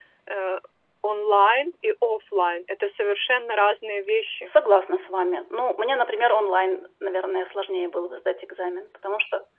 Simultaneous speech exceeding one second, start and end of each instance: none

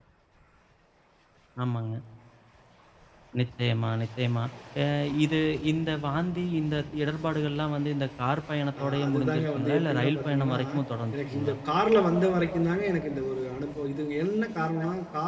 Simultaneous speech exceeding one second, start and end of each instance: 8.8-10.6

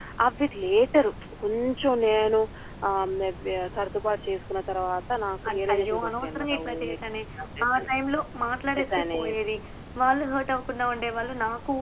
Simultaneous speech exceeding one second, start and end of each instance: 5.5-7.0

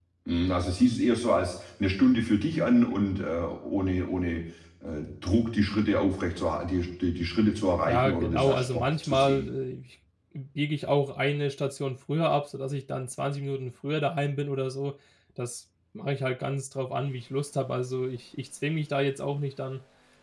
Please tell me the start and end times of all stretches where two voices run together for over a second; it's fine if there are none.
7.9-9.5

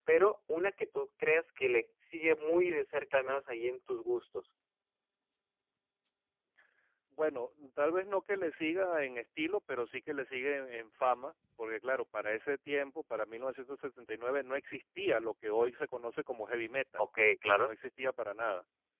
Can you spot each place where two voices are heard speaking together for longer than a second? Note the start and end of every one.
none

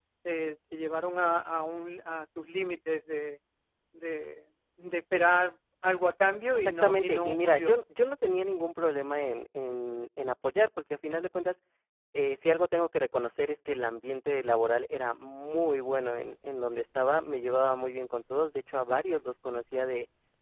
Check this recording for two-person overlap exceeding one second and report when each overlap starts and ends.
6.5-7.8

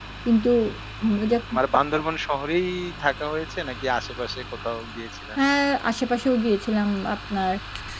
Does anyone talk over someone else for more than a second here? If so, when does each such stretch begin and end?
none

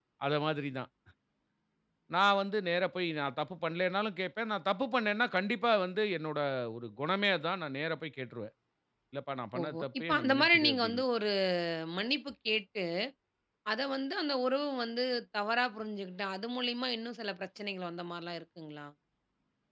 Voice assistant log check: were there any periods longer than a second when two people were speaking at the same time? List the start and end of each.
9.6-11.0

